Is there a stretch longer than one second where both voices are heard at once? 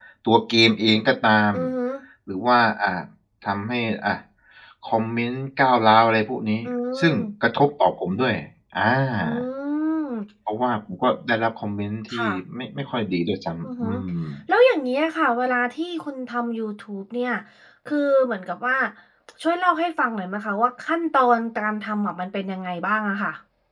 No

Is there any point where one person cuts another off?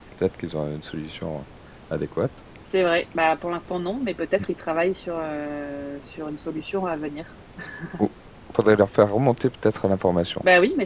No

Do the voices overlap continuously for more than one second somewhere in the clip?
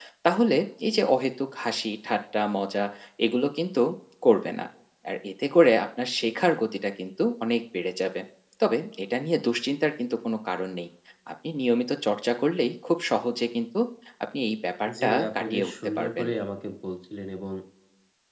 Yes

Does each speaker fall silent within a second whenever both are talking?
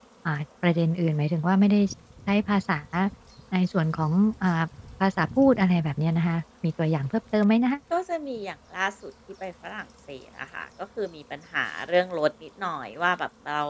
Yes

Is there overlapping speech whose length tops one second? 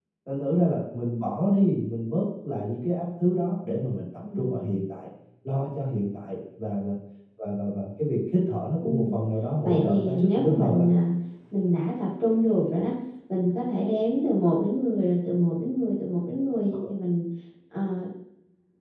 Yes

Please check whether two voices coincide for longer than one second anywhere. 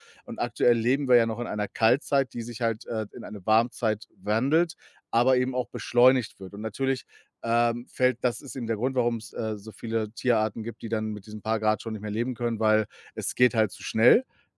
No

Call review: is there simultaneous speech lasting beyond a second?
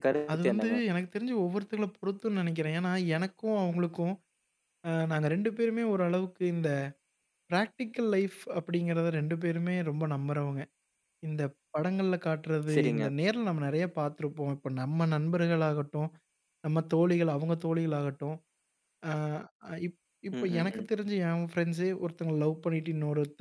No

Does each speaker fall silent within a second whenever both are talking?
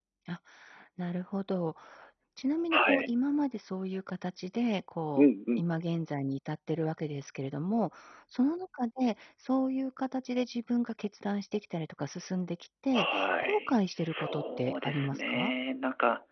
No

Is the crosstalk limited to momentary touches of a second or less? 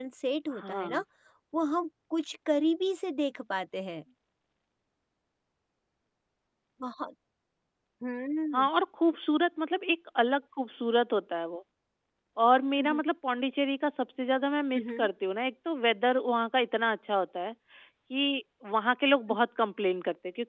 Yes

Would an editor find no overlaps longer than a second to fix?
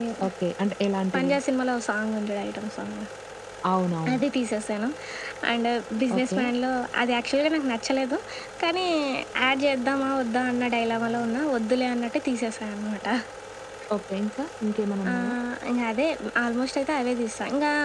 Yes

